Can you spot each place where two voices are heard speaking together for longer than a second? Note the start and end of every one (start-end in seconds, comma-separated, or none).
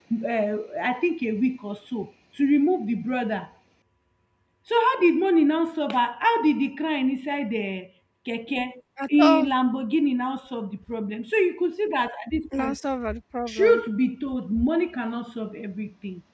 none